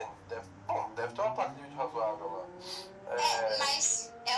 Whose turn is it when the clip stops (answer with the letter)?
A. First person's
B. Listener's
B